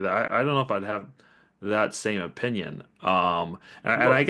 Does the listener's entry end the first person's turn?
No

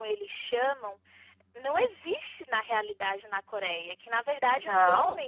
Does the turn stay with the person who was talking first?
Yes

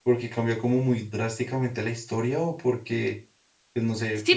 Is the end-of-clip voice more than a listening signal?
Yes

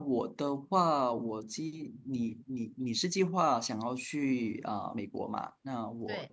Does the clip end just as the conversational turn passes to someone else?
No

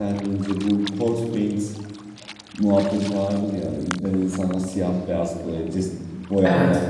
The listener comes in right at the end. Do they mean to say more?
No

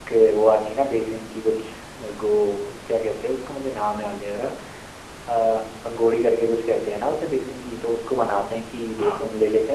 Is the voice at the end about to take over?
No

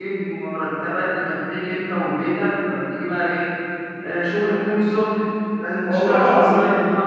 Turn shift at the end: No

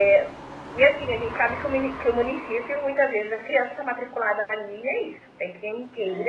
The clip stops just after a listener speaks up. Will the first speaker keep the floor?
Yes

